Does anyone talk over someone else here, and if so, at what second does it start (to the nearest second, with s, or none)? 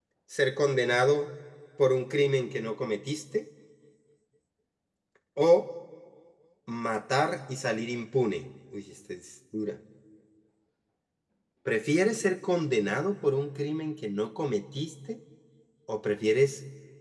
none